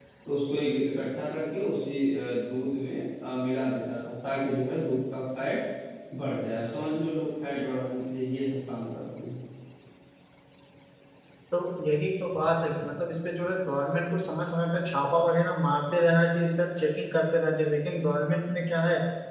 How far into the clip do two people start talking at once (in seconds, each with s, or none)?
none